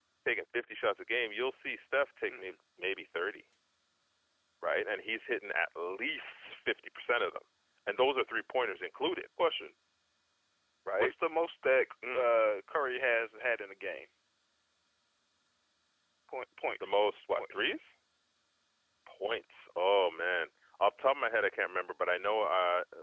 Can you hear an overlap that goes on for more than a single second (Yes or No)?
No